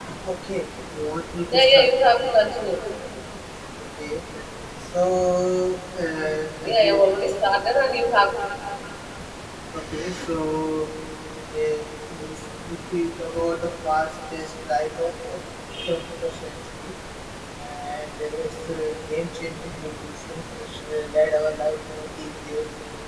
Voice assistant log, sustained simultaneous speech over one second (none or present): none